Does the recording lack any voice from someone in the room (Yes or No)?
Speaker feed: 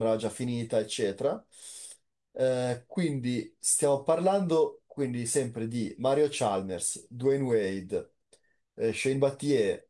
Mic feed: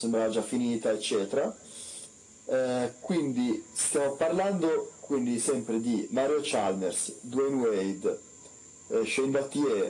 Yes